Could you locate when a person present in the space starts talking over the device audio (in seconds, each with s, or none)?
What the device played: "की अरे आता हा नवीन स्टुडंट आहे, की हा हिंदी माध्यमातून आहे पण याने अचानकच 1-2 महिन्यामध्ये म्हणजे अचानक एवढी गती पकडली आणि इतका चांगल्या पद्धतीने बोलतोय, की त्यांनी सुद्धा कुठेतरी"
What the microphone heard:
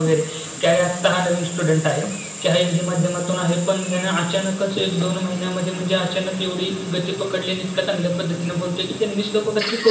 none